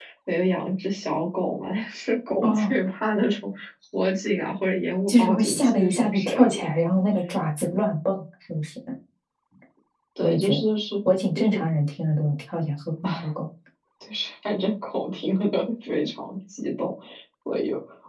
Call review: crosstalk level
present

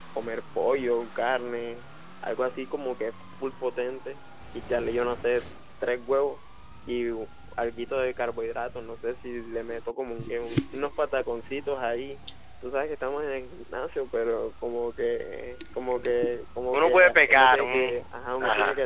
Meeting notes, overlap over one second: present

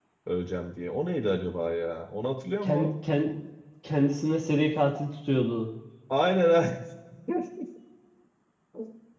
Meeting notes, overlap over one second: none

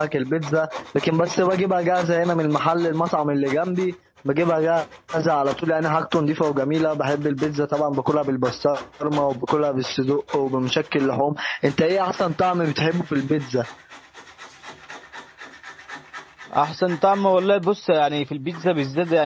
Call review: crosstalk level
none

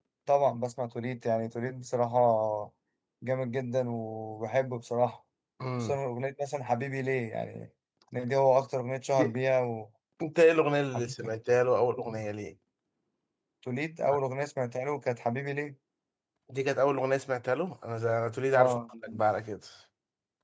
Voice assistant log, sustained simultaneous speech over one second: none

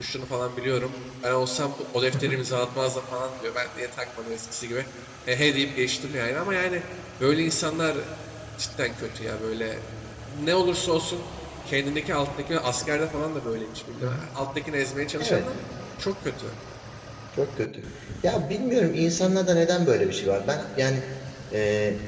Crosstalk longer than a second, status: none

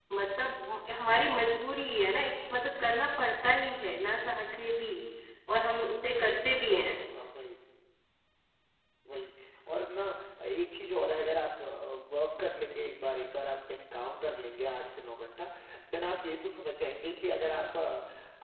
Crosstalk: none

